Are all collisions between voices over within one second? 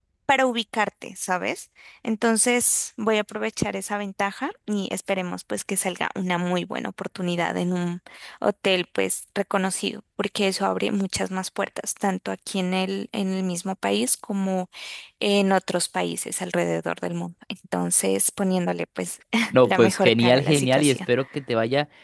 No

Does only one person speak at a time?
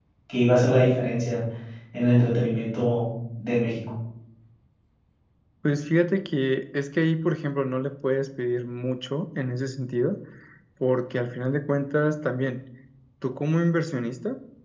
Yes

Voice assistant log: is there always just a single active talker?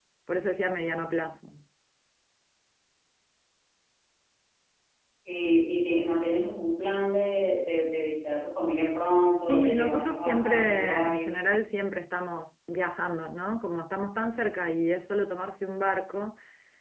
No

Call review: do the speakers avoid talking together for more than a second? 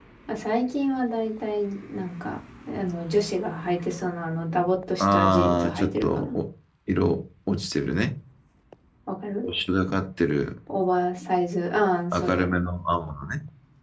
No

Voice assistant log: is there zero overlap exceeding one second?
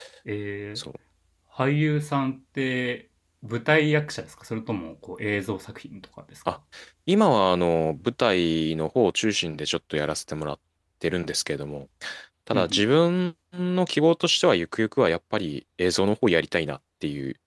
Yes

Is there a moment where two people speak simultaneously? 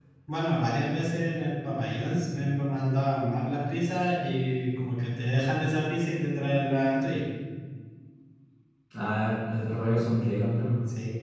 No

